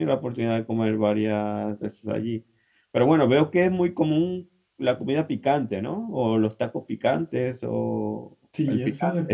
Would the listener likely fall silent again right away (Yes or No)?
No